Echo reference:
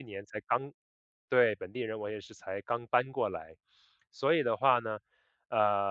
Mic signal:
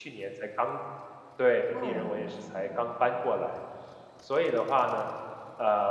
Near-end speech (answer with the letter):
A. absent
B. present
B